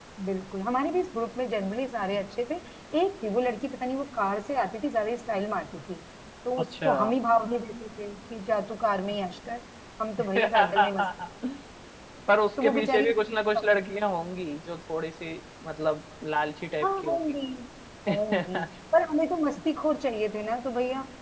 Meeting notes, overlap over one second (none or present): present